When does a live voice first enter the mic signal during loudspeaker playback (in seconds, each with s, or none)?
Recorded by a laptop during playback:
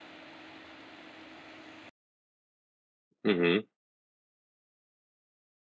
3.2 s